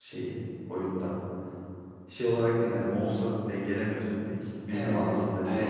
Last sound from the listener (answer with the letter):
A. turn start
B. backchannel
A